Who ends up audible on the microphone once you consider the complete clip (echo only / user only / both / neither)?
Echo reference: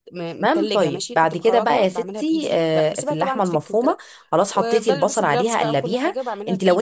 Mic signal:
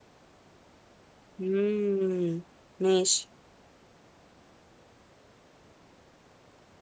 user only